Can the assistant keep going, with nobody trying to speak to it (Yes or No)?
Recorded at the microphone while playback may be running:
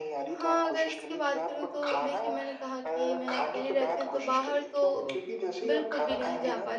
No